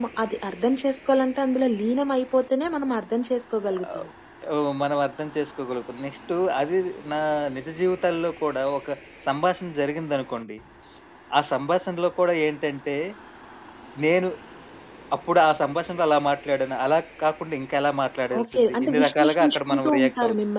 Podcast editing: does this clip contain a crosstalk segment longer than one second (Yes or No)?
Yes